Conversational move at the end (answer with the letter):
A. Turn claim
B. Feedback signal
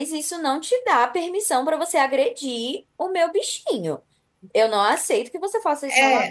A